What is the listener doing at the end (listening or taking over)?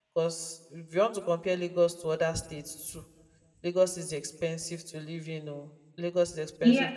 taking over